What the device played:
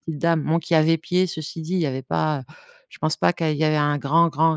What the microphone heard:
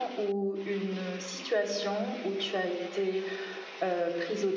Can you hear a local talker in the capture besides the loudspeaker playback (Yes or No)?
Yes